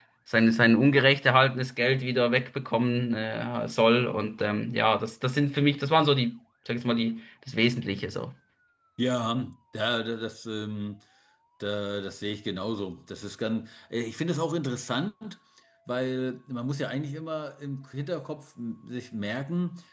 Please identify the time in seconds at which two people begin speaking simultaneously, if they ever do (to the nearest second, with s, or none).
none